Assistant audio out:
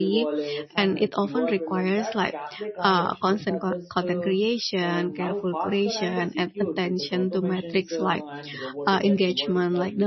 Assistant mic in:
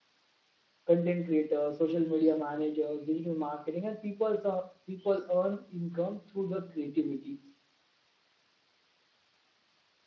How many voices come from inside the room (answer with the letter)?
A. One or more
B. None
A